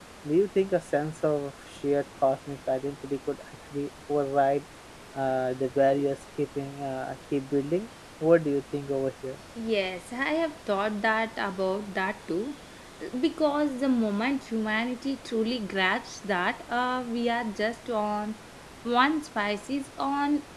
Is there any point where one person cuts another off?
No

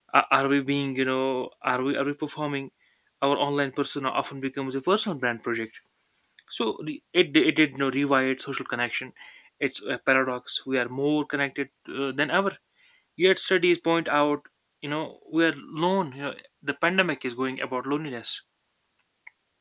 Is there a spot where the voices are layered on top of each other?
No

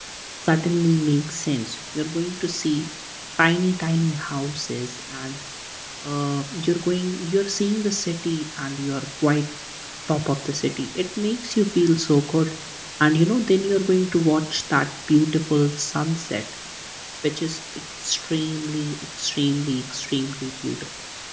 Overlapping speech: No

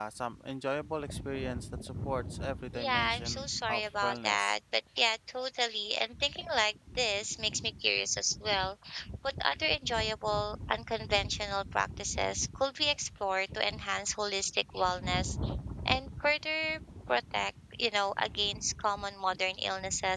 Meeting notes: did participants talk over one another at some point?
Yes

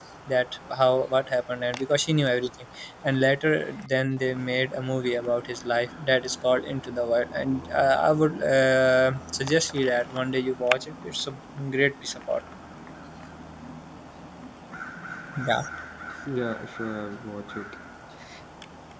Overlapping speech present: No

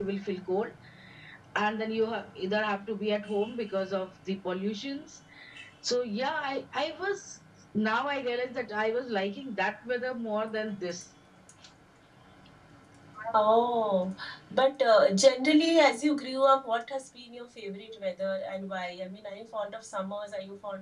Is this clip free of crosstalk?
Yes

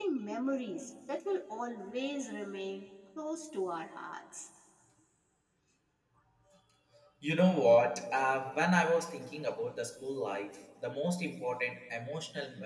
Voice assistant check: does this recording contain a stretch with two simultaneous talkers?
No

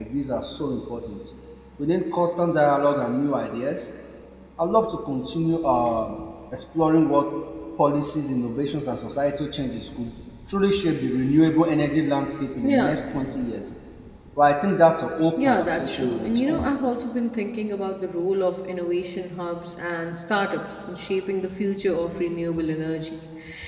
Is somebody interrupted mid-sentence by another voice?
Yes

